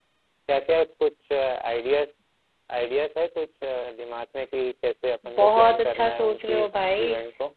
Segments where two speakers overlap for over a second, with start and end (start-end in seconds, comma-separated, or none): 5.4-6.6